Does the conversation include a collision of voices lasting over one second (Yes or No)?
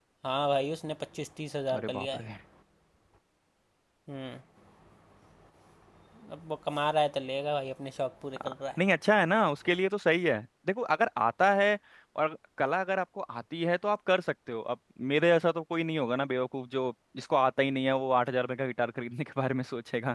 No